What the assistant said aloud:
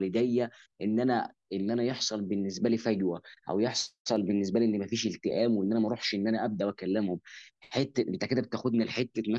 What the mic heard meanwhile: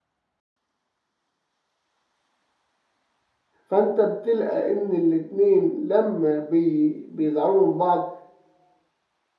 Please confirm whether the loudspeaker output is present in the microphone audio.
No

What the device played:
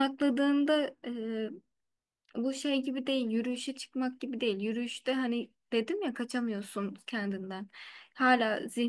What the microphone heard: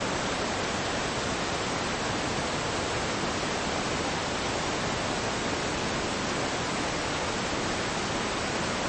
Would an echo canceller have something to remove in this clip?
No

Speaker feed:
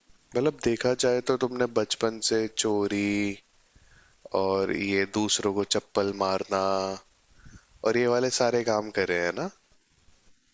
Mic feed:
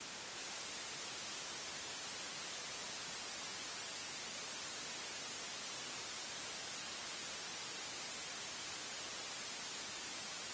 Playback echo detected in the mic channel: No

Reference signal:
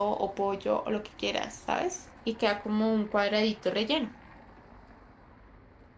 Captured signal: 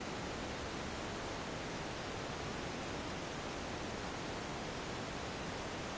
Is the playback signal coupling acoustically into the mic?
No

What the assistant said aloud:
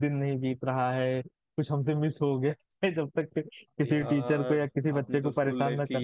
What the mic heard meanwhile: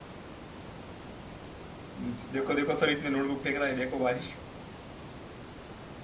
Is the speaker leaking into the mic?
No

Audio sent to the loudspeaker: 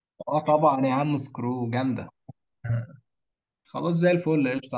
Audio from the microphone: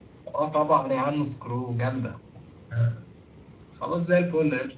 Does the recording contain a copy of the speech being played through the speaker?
Yes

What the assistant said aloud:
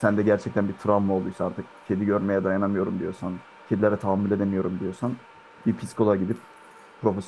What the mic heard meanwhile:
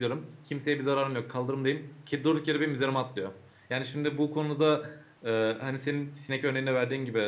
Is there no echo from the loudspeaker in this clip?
Yes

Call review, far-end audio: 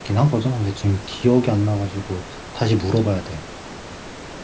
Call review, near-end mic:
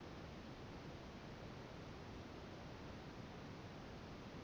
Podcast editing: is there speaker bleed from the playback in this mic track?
No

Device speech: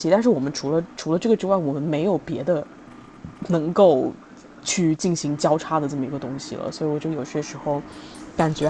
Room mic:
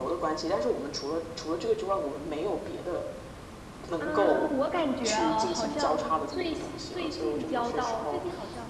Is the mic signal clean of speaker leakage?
No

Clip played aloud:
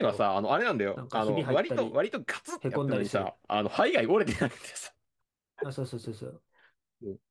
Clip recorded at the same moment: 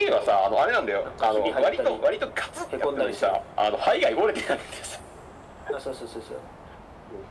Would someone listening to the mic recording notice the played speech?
Yes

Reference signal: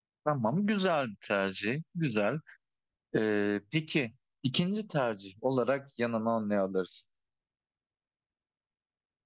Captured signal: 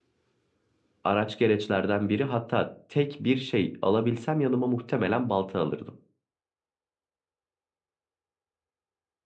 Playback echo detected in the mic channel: No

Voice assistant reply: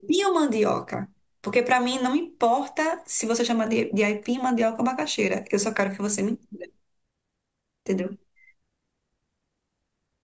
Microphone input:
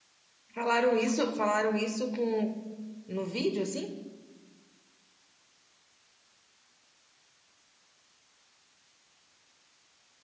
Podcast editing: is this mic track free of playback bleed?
Yes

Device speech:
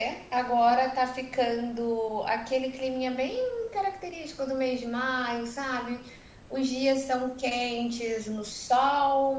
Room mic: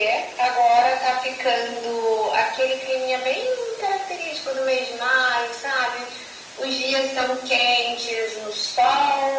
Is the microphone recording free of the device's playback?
No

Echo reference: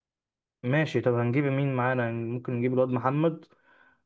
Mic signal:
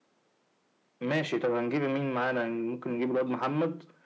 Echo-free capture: No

